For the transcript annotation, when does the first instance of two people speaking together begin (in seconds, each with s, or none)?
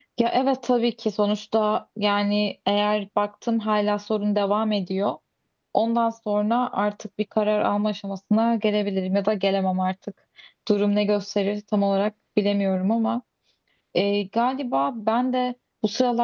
none